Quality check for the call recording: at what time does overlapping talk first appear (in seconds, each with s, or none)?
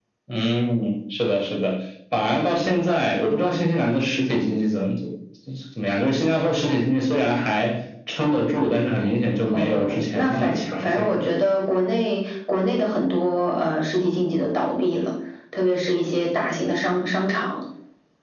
9.4 s